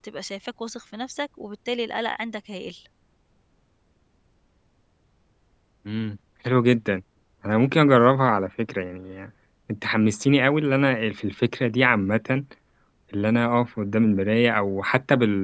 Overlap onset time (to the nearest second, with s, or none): none